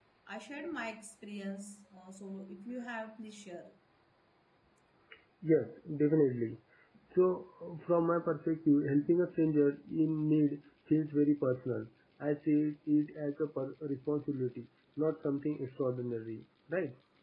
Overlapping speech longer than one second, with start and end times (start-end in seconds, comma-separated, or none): none